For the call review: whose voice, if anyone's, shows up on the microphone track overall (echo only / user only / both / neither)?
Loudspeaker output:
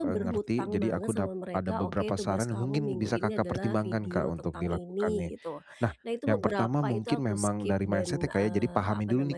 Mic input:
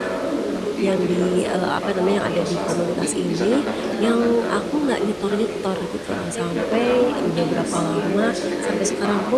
both